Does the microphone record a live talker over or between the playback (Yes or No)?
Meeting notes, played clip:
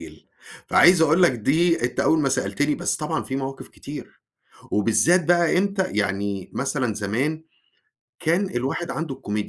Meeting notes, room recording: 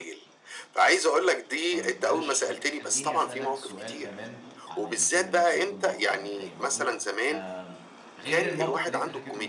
Yes